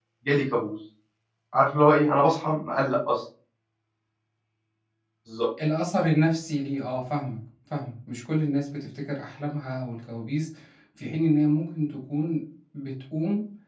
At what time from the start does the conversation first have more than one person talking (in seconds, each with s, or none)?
none